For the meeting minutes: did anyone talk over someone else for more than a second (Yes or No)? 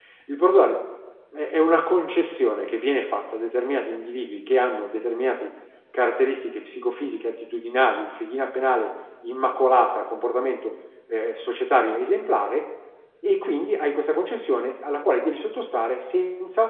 No